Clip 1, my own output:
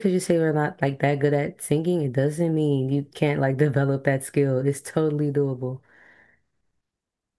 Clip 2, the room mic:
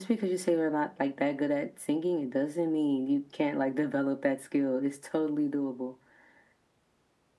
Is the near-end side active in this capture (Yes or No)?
No